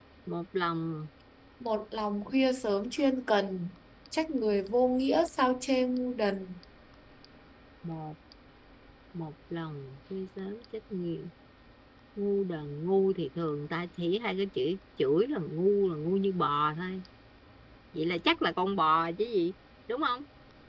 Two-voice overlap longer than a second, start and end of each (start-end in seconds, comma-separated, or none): none